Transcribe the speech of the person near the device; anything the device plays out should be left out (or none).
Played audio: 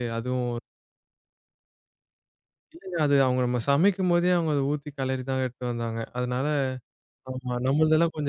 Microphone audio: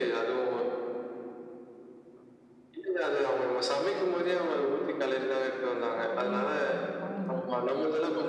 கட் பண்ணியே வச்சிருப்பாங்க. அவ்வளோதான்.